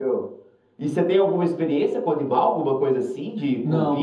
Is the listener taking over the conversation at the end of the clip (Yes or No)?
Yes